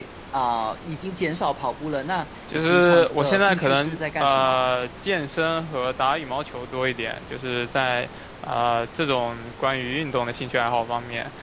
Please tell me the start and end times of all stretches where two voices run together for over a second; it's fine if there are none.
2.7-4.7

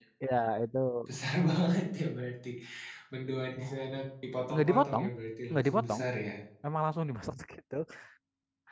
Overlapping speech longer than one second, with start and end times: none

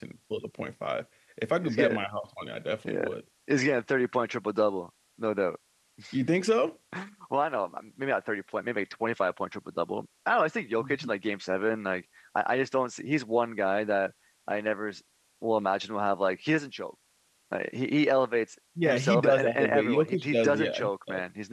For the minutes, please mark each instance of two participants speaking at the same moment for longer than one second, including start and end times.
18.8-20.9

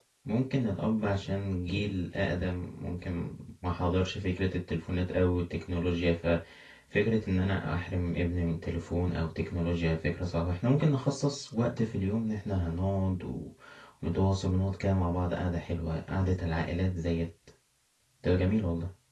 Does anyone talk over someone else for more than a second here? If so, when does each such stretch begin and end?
none

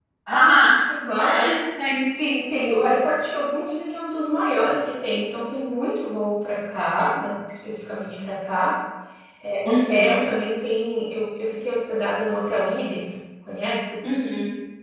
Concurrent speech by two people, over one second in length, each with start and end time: none

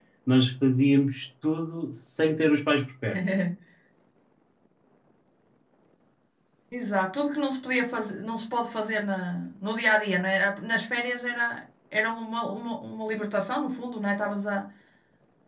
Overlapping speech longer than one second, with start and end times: none

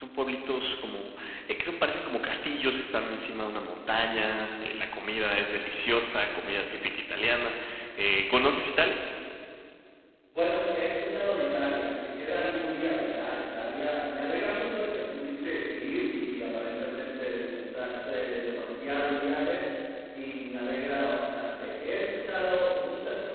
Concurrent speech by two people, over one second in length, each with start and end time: none

